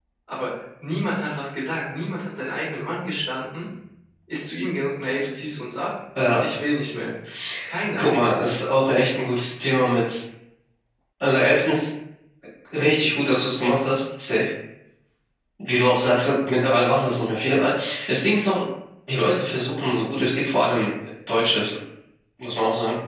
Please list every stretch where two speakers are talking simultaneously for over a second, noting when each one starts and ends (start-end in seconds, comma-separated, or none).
none